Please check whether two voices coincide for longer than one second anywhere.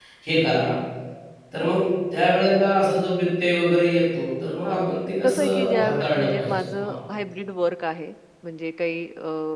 Yes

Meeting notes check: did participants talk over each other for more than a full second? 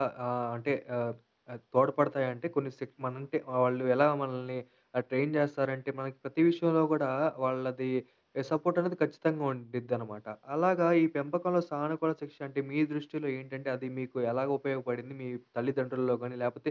No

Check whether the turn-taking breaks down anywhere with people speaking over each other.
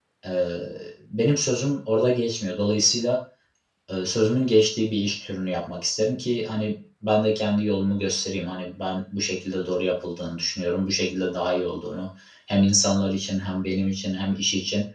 No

